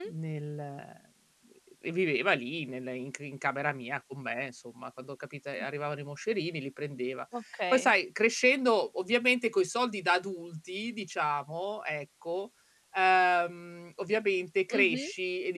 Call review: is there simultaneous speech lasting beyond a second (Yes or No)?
No